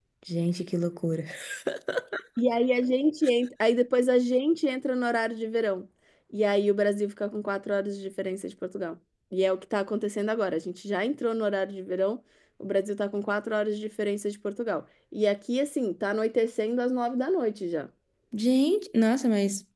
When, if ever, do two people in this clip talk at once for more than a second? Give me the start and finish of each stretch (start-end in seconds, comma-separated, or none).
none